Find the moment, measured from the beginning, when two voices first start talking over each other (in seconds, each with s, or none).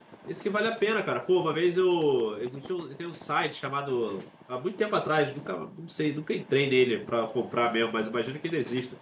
none